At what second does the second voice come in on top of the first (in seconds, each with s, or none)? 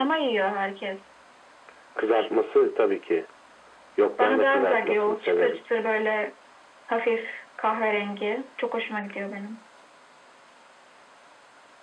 4.2 s